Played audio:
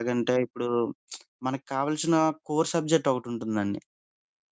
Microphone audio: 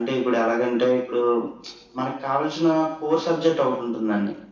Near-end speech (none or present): none